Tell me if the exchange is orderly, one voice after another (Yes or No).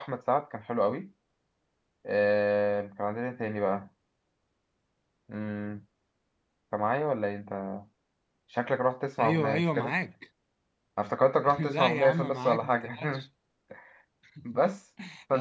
No